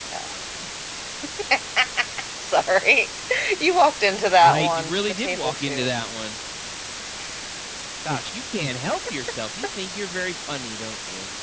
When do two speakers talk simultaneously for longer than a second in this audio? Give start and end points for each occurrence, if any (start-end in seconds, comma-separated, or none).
4.4-5.9